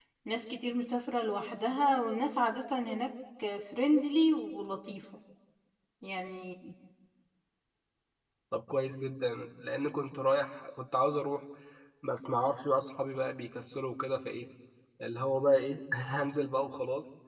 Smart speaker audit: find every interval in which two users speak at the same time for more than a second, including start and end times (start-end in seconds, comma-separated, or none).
none